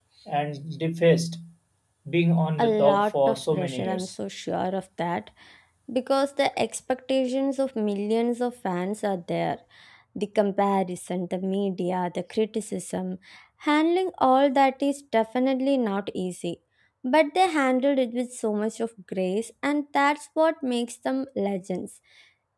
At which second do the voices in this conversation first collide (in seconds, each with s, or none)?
2.6 s